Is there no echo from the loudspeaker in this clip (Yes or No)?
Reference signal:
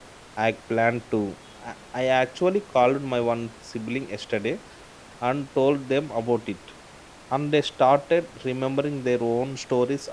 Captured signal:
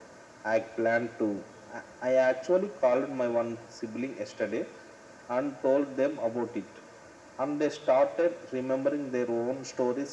No